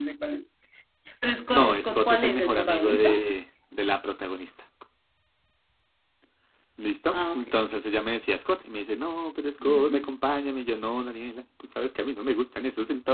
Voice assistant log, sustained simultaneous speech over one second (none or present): present